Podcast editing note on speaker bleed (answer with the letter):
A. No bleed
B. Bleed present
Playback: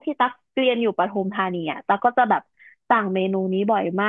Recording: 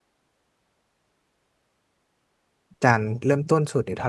A